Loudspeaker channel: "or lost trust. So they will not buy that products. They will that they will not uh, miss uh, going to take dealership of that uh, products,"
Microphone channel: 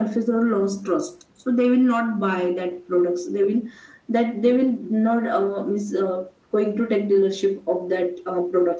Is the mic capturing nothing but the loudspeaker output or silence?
Yes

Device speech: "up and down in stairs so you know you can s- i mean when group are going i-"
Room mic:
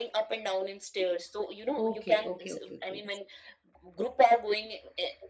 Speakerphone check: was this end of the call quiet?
No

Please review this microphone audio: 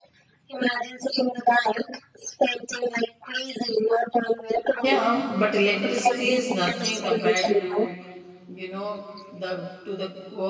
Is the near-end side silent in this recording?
No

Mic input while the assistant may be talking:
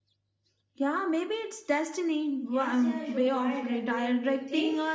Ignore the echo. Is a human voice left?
Yes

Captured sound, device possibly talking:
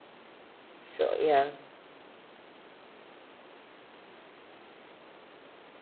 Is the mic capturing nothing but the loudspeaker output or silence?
No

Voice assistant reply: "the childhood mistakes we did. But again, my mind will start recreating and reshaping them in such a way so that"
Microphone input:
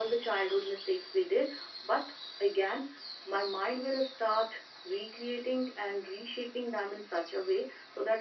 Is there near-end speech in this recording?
No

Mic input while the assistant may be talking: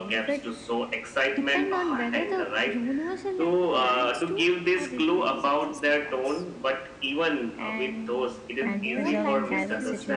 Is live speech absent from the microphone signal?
No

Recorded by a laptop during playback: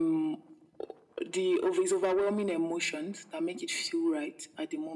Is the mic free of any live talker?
Yes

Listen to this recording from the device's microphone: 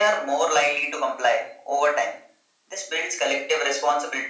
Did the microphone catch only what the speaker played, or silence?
Yes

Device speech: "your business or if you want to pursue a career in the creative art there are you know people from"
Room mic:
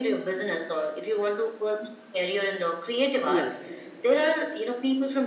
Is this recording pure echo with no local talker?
No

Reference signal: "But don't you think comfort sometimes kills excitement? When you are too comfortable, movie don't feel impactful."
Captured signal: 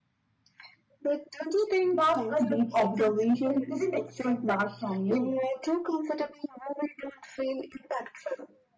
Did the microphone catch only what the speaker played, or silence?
No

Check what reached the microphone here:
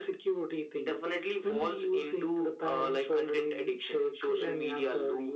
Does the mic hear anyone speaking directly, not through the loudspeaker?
No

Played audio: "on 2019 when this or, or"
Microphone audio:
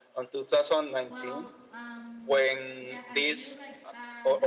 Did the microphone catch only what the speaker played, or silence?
No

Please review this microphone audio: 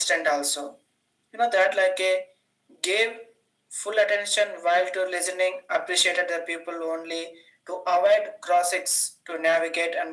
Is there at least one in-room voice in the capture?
No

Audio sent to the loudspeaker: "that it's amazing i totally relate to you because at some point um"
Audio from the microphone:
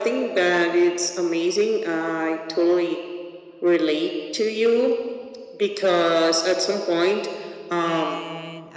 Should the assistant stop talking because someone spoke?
Yes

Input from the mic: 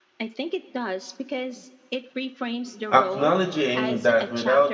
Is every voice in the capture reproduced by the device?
No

